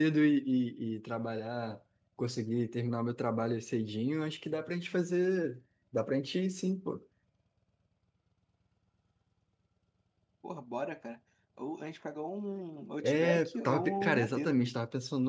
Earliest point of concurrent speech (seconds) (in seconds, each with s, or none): 13.0 s